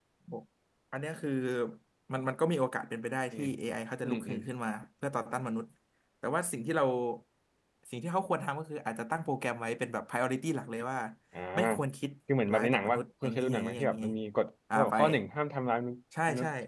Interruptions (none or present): present